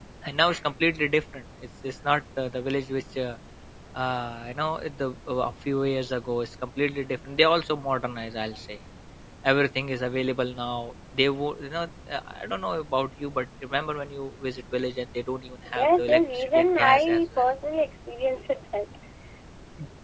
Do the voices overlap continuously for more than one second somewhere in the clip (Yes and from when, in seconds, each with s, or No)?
Yes, from 15.7 s